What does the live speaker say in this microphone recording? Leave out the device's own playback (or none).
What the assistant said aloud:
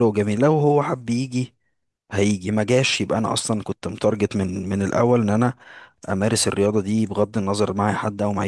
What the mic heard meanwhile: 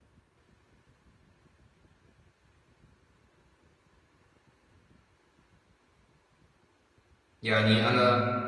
يعني انا